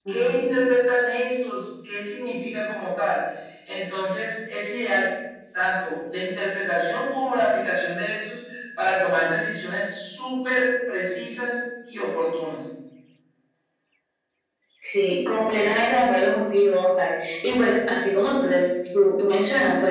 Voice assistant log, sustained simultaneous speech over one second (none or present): none